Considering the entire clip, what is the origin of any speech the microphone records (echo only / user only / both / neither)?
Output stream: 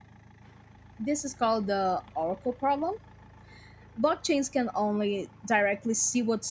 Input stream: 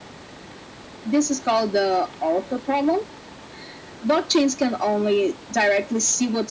echo only